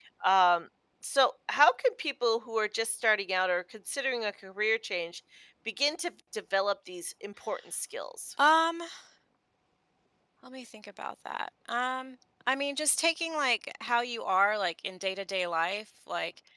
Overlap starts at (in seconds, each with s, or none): none